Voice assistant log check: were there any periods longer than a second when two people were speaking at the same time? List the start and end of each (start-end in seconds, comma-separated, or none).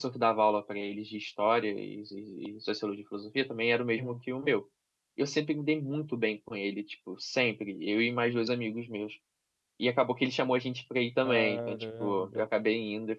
11.2-12.5